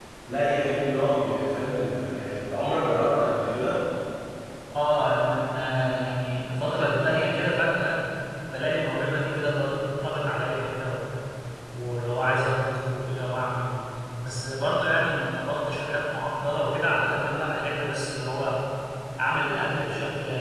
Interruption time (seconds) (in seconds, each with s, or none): none